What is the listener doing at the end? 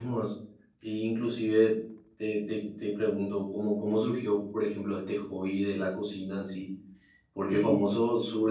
listening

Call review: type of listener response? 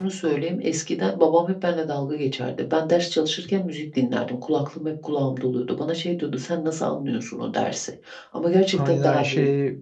taking over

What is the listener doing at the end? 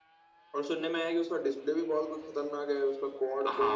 taking over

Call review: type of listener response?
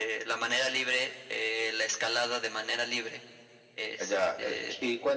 taking over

